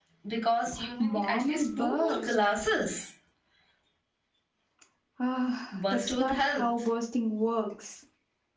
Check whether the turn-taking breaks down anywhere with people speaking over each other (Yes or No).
Yes